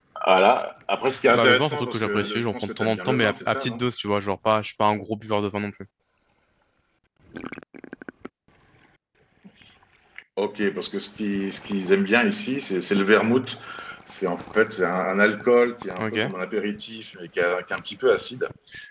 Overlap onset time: 1.3 s

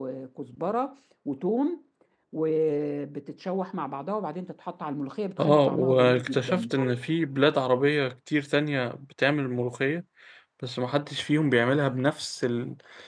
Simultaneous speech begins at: 5.4 s

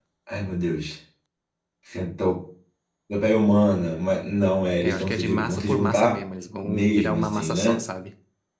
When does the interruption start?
4.8 s

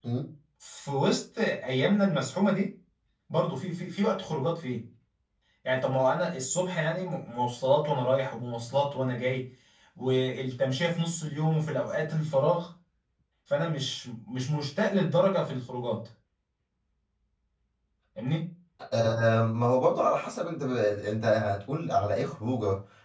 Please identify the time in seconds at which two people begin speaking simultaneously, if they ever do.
none

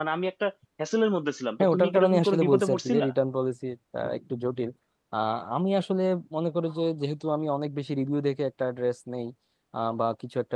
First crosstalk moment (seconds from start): 1.6 s

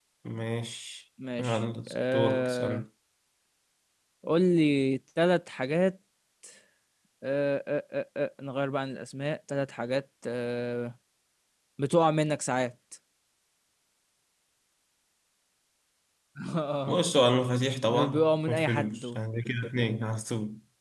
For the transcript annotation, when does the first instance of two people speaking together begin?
1.4 s

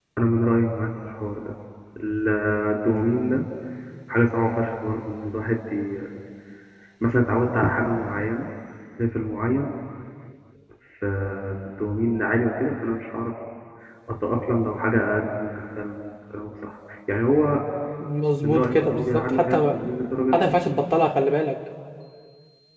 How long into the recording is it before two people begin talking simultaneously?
18.4 s

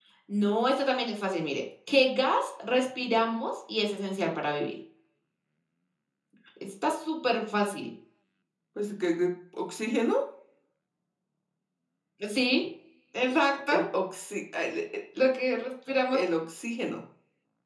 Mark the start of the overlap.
none

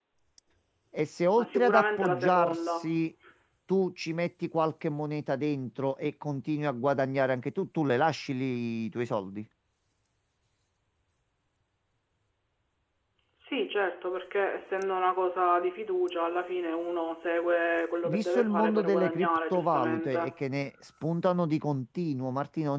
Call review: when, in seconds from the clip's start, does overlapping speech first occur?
1.4 s

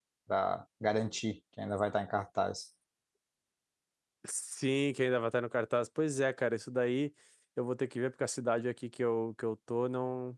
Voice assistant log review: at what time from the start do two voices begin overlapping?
none

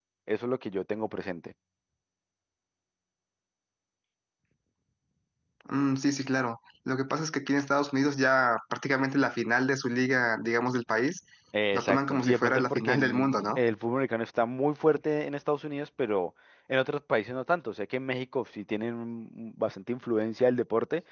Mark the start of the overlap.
11.7 s

